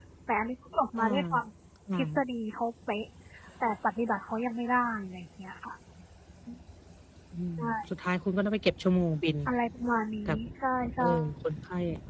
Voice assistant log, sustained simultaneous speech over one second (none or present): none